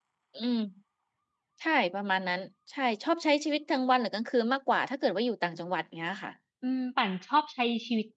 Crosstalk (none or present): none